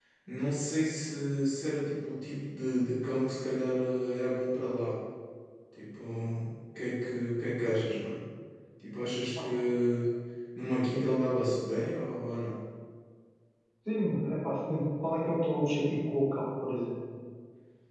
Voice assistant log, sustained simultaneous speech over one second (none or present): none